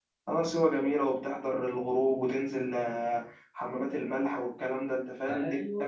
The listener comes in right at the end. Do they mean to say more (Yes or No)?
Yes